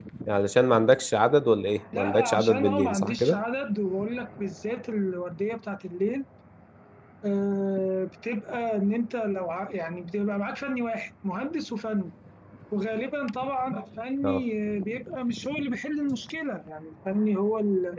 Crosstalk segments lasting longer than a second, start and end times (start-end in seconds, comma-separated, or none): 1.9-3.4